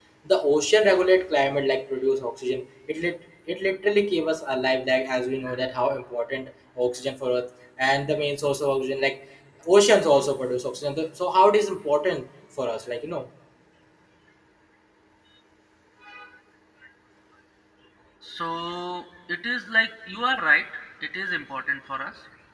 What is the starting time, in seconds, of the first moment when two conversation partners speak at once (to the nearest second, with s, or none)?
none